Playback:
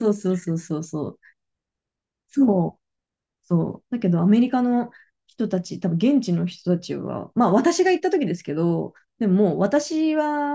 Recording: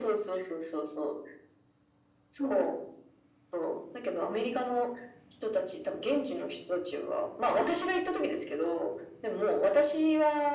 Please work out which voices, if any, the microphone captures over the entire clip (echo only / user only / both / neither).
echo only